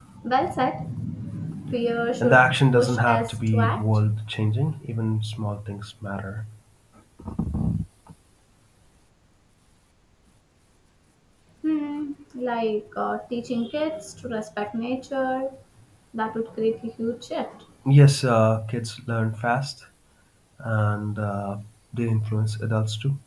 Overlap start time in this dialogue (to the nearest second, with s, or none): 2 s